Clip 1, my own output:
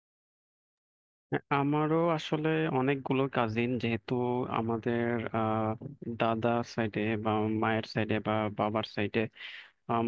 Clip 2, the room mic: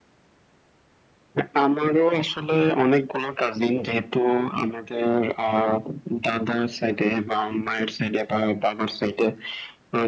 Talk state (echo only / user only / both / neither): echo only